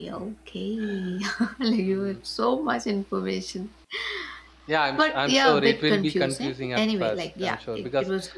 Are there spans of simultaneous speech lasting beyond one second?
Yes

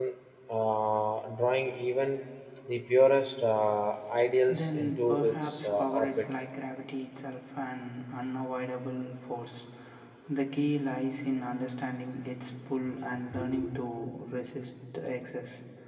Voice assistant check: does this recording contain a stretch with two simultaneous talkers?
Yes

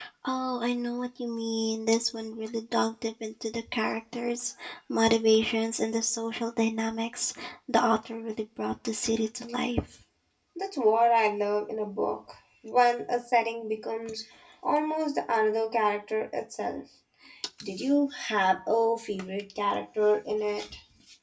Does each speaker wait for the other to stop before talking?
Yes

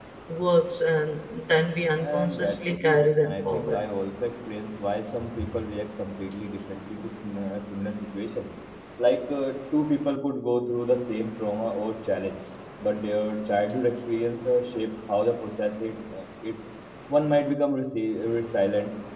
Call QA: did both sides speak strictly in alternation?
No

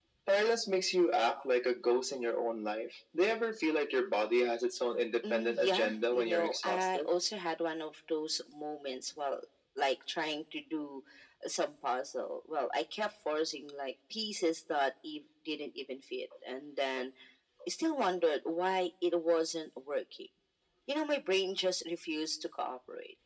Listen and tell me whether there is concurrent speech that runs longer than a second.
Yes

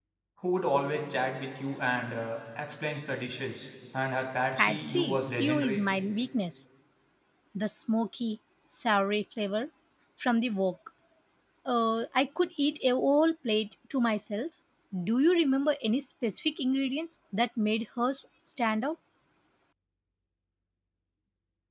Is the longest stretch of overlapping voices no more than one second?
No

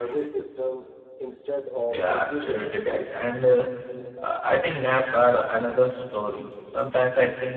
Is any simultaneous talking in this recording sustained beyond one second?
Yes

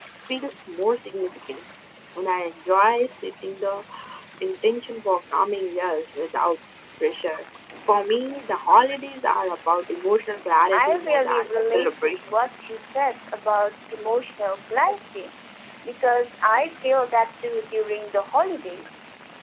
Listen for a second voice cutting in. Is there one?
Yes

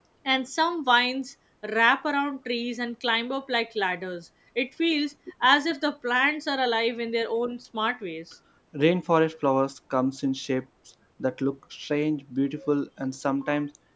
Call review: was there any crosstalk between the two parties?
No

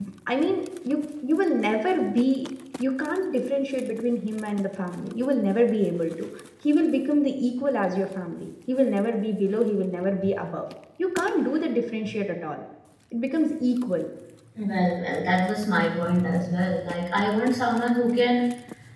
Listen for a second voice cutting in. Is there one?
No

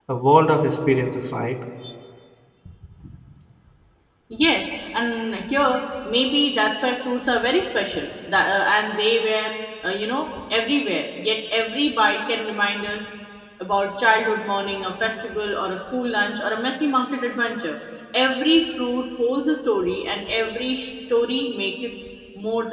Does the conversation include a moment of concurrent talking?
No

